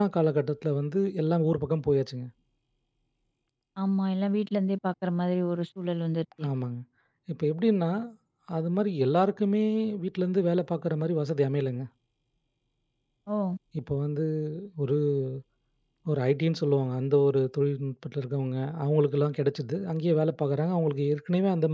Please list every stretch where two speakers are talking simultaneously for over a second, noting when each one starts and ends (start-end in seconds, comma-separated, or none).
none